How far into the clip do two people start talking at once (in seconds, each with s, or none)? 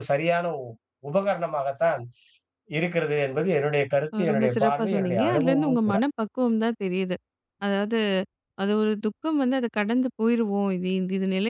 4.1 s